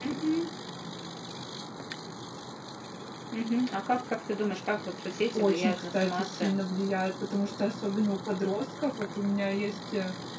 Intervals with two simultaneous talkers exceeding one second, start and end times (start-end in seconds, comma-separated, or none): 5.4-6.8